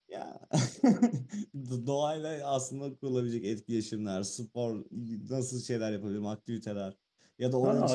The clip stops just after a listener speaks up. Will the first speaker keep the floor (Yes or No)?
No